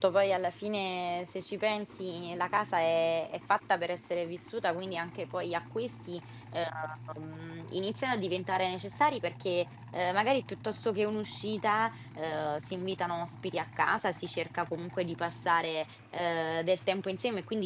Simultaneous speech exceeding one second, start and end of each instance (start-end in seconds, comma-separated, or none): none